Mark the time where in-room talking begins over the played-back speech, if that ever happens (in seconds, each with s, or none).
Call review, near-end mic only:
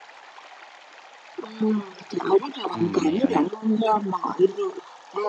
2.7 s